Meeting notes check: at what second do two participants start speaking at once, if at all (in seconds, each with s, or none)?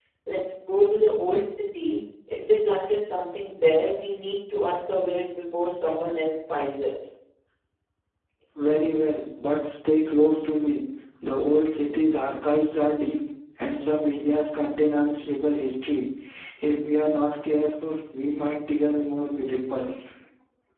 none